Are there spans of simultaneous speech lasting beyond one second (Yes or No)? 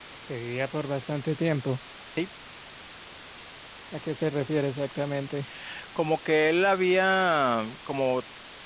No